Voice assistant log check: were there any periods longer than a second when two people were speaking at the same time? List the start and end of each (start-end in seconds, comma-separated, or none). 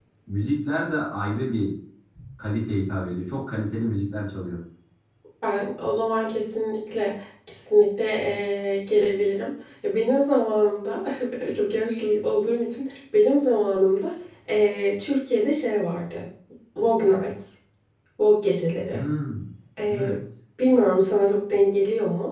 none